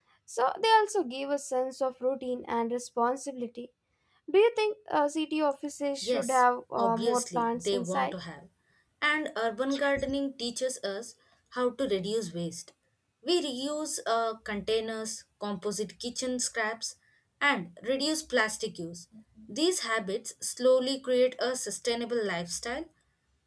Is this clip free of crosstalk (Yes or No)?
No